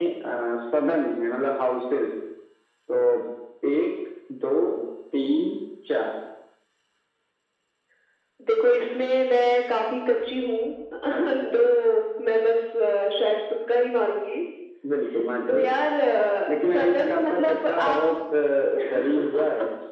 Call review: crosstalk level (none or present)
present